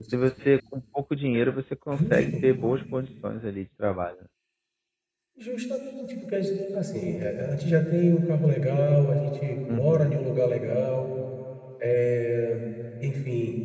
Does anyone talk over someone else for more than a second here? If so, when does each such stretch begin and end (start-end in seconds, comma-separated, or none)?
none